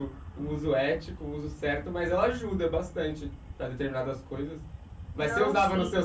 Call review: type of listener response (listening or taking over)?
listening